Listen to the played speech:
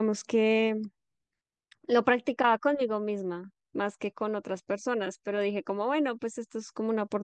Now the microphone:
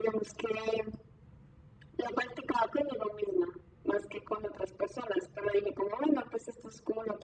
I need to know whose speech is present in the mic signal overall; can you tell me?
echo only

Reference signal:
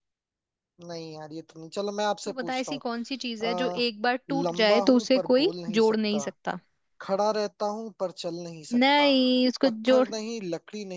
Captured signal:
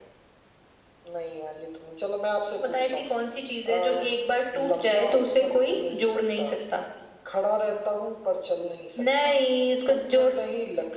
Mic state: echo only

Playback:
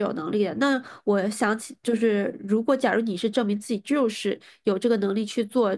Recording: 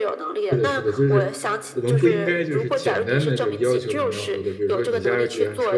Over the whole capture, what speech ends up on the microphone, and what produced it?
both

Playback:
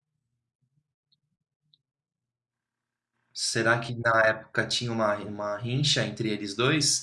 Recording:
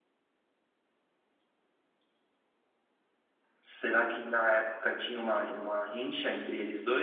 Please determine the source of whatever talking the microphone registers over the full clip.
echo only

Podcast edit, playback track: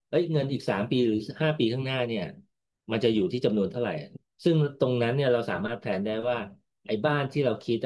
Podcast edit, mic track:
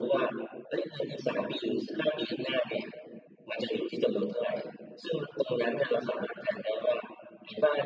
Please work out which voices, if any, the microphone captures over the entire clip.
echo only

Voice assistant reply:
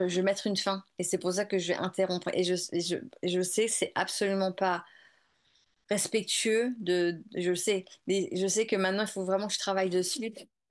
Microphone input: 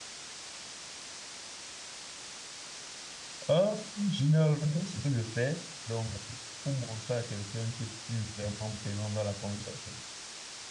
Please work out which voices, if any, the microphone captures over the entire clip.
user only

